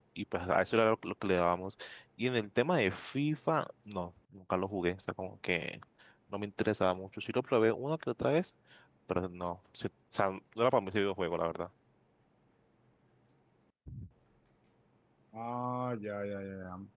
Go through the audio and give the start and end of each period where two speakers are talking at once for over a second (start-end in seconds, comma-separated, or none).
none